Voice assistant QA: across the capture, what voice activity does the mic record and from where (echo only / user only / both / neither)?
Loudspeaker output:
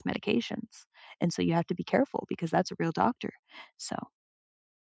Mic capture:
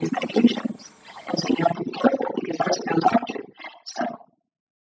echo only